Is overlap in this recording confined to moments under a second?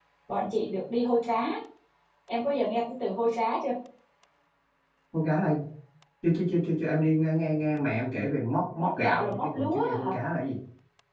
No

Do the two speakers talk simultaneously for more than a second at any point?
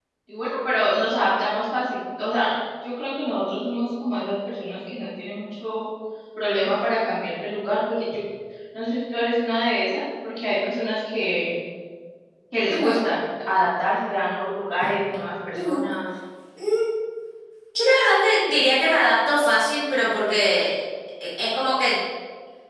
No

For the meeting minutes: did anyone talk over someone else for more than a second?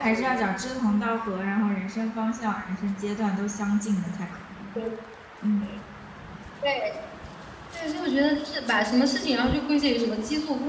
No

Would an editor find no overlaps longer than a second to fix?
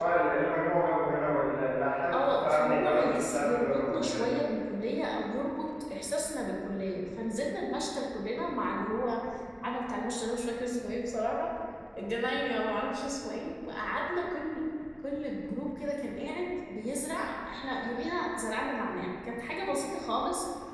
No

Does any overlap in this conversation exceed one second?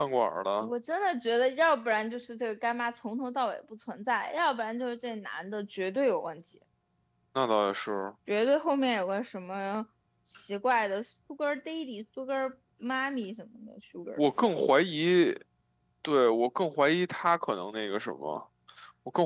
No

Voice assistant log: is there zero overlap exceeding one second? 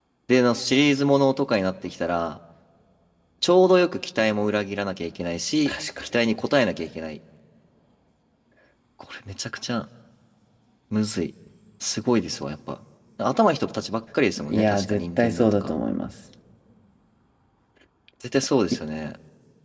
No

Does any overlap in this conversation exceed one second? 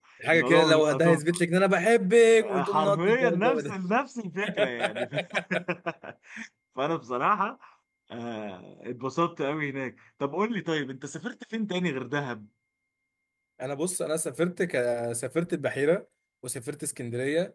Yes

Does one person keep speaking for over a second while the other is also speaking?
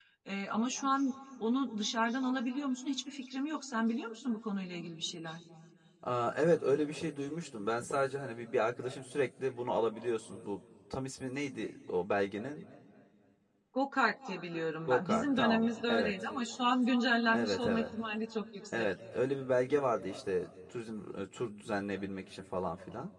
Yes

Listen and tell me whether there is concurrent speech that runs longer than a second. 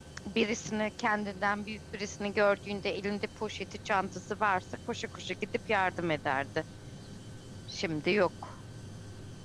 No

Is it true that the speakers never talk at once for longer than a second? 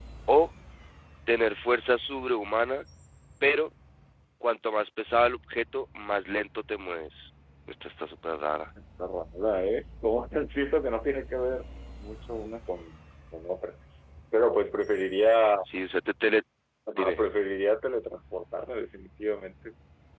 Yes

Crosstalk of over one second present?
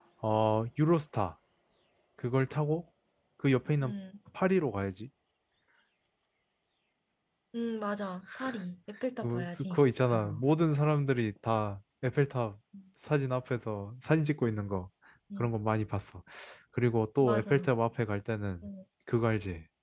Yes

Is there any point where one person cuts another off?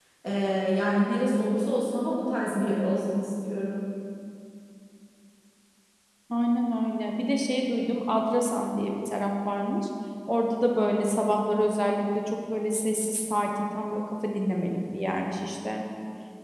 No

